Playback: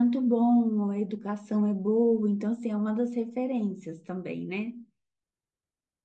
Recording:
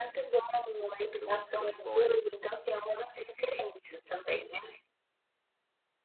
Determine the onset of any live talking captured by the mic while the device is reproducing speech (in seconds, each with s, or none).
1.2 s